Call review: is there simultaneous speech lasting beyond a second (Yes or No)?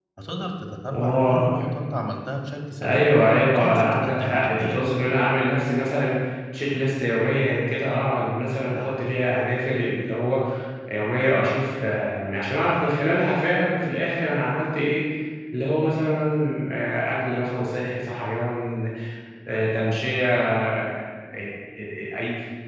Yes